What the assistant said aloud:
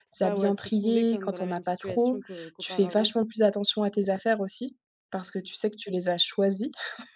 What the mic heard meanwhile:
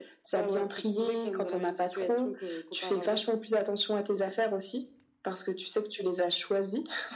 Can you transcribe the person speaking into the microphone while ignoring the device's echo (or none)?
none